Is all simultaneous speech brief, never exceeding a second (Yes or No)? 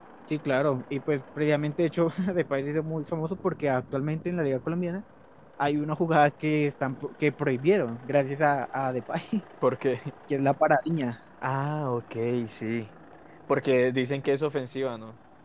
Yes